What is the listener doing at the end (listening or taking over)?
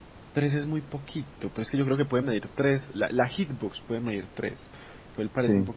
listening